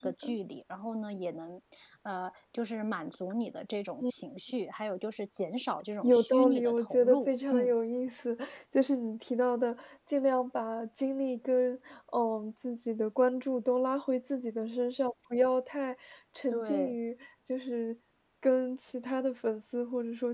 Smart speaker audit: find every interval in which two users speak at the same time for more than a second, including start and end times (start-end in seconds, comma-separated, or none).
6.0-7.7